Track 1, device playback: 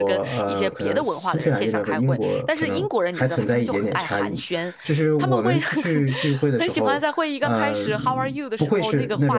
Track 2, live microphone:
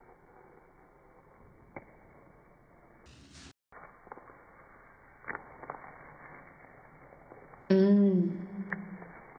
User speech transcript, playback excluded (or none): 嗯